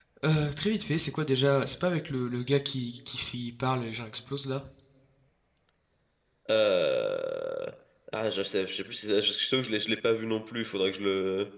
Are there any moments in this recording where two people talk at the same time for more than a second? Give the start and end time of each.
none

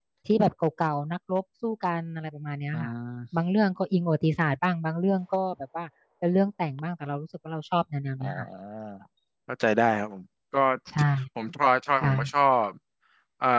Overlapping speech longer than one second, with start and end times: none

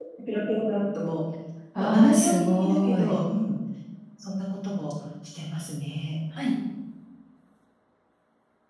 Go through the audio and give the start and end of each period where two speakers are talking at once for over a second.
1.8-3.2

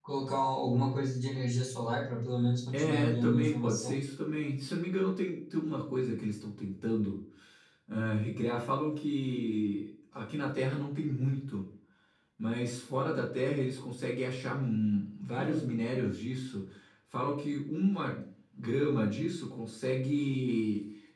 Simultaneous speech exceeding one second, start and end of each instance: 2.7-4.0

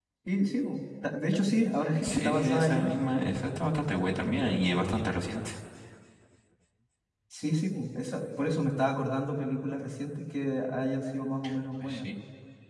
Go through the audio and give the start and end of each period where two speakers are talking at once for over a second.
2.0-3.3

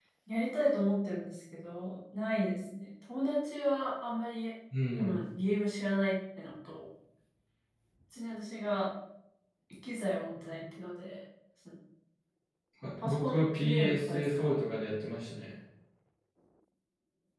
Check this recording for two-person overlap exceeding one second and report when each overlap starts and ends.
13.0-14.5

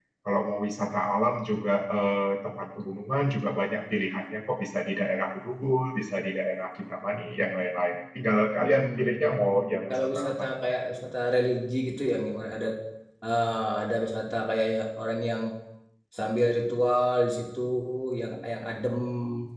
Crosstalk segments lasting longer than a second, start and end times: 8.6-10.4

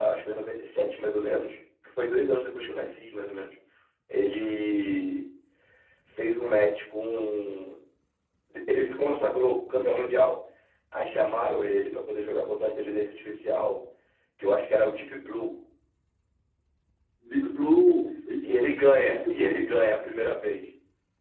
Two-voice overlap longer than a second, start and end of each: 18.4-19.7

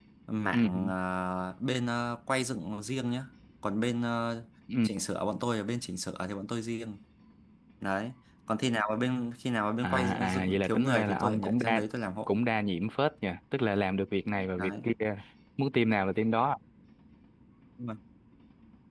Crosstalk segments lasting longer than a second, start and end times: 9.8-11.8

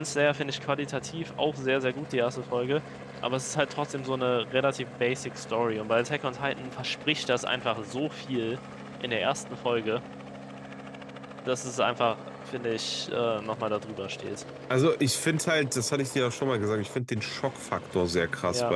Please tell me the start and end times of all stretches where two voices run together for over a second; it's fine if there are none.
none

